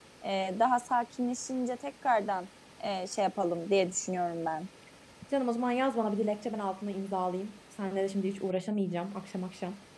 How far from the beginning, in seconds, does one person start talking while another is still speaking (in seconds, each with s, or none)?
none